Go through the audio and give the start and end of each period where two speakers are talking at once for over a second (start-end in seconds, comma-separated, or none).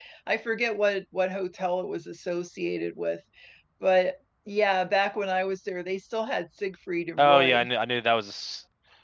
none